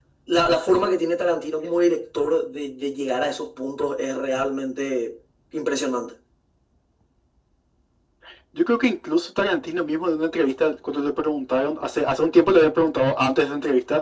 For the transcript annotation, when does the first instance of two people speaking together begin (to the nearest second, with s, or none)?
none